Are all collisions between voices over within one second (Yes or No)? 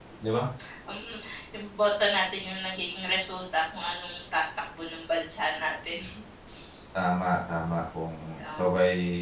Yes